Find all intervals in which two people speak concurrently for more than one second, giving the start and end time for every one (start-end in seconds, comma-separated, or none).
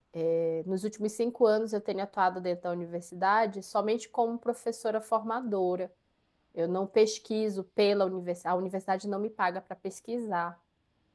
none